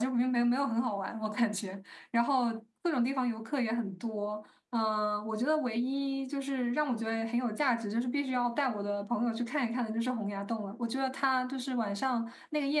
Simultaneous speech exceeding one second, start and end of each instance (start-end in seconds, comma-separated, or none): none